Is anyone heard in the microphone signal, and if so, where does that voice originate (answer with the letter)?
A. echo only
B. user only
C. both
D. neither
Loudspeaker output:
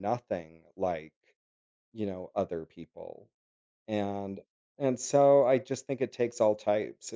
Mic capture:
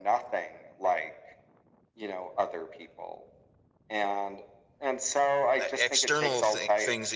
C